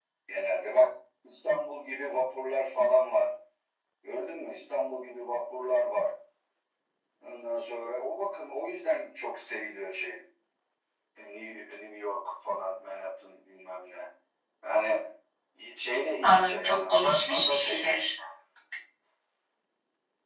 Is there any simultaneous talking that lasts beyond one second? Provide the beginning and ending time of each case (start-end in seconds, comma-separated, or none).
16.2-18.0